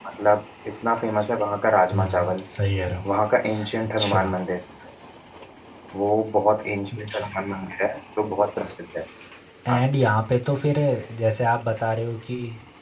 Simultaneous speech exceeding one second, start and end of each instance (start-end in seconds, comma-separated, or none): none